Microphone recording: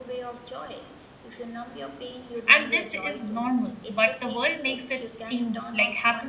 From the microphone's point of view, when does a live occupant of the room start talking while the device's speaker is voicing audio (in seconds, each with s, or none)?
2.5 s